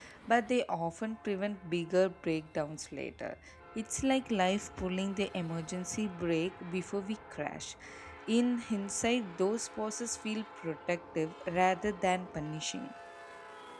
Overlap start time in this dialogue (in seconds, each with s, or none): none